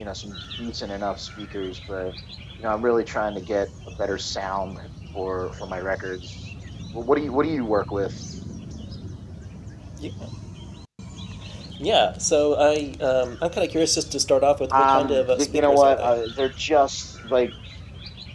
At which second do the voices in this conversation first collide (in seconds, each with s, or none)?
14.7 s